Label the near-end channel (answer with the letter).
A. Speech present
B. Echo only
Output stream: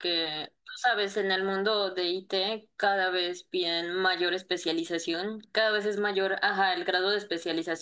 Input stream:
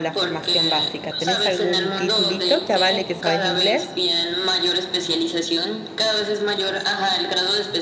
A